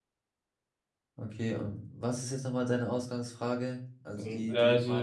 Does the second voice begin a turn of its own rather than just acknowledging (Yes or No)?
Yes